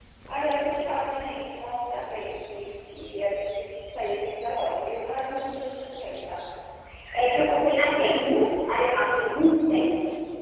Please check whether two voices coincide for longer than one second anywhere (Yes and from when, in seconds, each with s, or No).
No